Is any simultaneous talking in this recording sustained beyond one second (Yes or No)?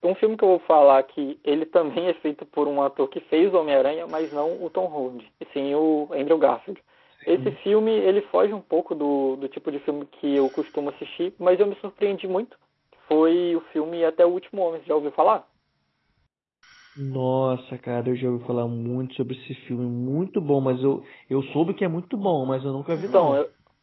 No